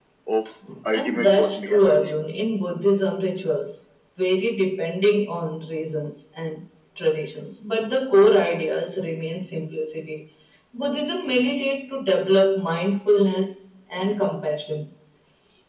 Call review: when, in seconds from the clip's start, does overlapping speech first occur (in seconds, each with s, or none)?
0.9 s